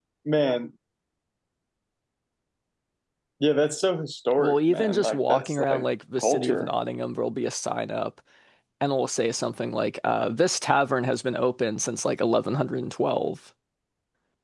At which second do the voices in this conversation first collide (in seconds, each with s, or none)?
4.4 s